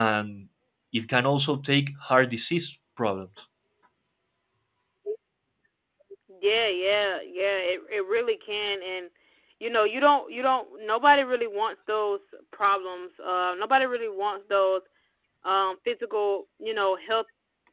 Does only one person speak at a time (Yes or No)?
Yes